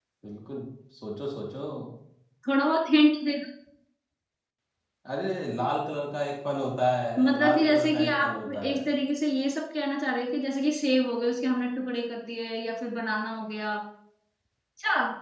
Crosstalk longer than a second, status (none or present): present